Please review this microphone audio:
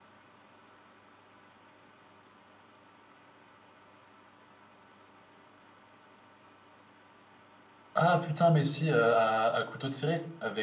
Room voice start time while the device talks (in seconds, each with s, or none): 7.9 s